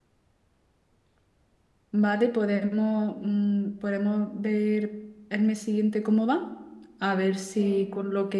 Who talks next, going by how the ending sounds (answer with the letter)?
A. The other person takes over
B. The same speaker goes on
B